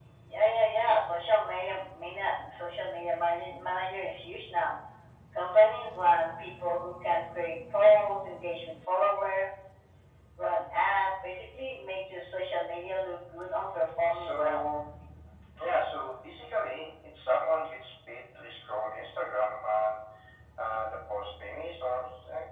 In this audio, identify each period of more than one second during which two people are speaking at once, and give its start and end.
none

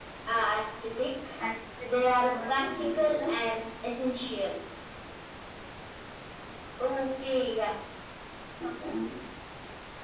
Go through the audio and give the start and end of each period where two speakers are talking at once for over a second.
1.8-3.3

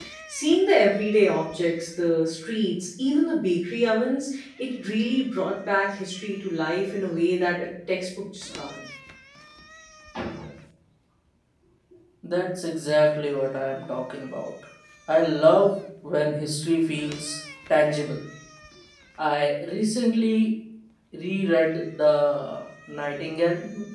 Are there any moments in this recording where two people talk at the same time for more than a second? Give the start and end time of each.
none

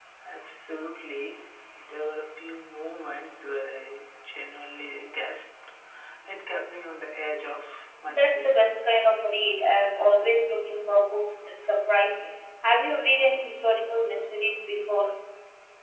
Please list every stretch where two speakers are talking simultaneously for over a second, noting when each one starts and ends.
none

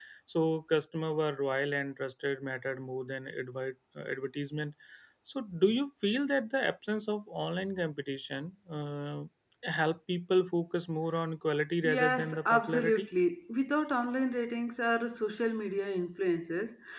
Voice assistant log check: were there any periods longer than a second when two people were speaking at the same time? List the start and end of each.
11.8-13.1

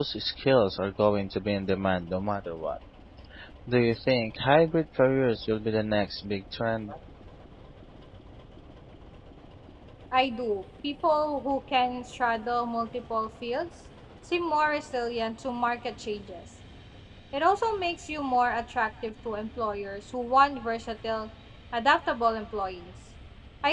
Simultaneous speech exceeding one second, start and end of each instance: none

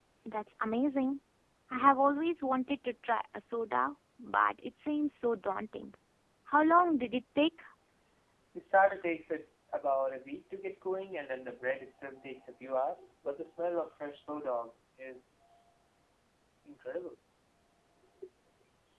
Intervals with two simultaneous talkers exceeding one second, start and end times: none

